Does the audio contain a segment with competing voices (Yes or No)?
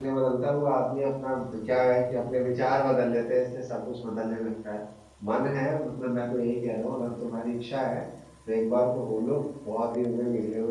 No